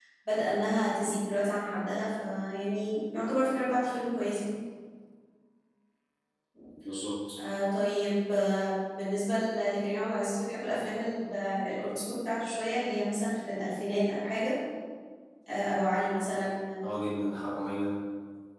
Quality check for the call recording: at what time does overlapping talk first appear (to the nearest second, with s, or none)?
none